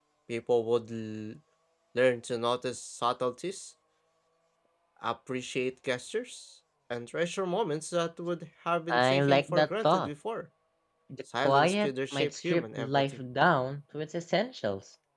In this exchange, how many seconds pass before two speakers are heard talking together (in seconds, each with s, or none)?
8.9 s